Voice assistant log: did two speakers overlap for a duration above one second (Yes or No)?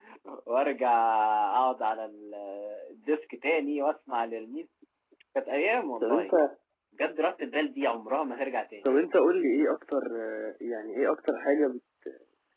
No